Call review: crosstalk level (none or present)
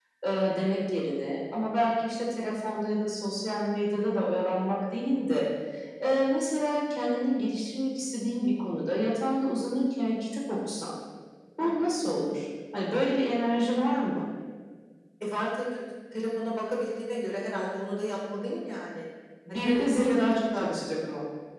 present